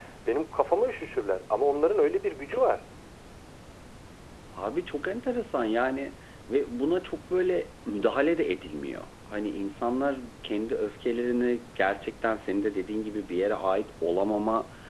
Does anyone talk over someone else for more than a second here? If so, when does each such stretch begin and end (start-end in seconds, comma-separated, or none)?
none